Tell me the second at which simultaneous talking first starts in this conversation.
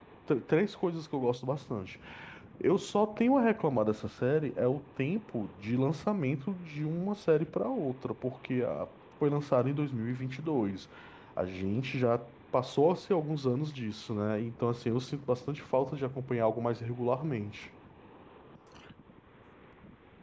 none

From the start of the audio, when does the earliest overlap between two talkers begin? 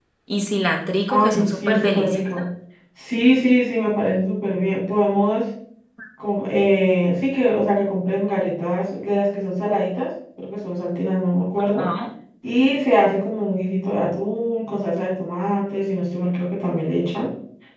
1.1 s

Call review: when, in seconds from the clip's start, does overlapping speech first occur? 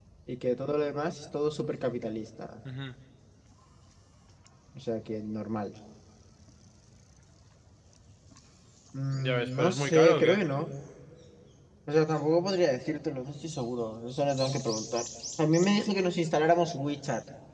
9.1 s

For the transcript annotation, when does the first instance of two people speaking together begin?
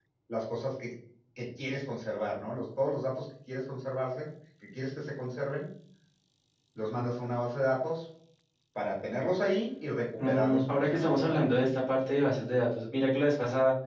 10.2 s

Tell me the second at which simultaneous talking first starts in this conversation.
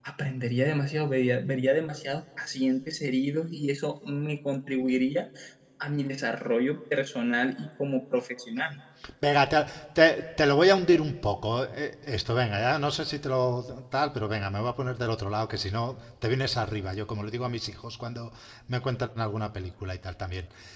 none

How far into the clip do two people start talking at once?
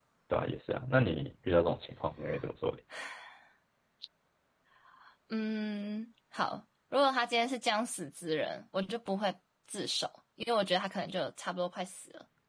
none

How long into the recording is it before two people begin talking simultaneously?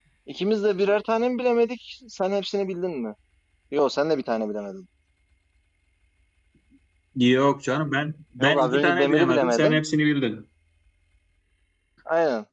8.4 s

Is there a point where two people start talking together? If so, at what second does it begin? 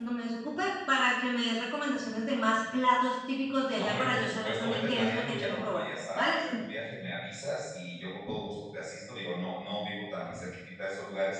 3.7 s

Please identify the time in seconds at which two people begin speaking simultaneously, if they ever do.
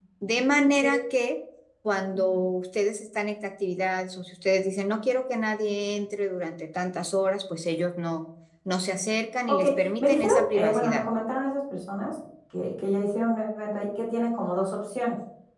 9.5 s

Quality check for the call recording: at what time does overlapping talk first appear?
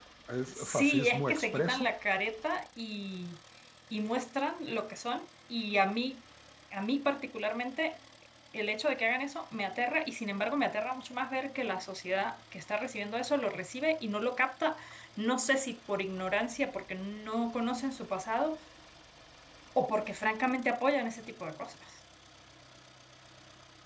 0.5 s

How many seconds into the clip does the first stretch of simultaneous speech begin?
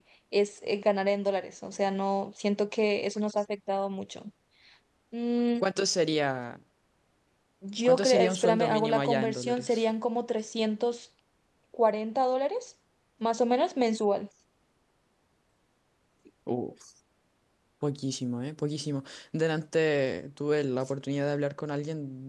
7.8 s

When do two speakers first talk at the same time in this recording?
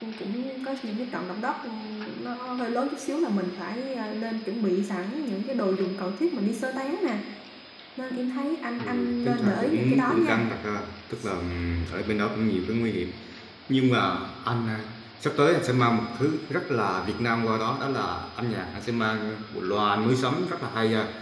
8.8 s

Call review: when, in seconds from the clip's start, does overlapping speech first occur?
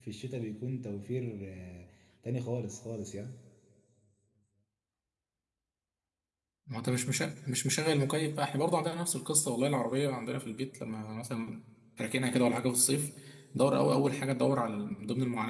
none

